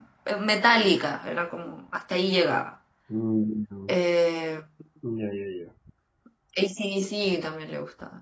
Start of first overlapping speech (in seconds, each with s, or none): none